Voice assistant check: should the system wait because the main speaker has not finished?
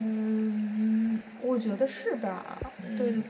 No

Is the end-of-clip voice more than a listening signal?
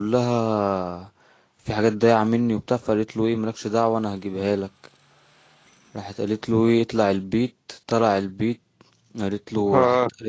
No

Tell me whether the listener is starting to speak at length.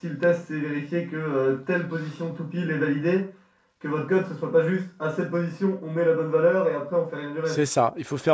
Yes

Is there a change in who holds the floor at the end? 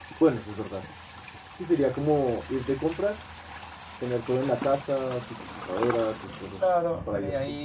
Yes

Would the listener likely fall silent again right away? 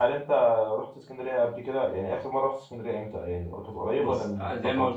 No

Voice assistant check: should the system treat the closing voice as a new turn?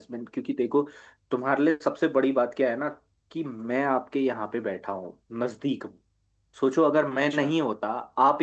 No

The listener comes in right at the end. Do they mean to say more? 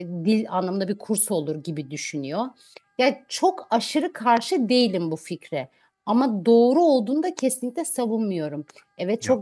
No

